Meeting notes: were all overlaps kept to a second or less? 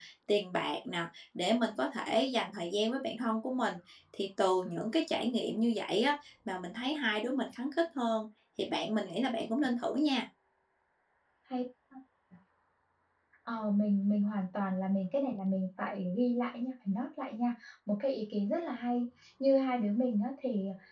Yes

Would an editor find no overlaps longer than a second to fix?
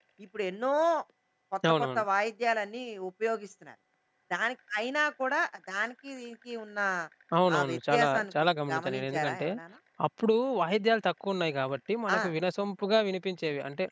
No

